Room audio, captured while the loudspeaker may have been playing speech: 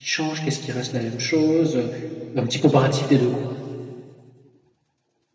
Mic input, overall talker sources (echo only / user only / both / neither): user only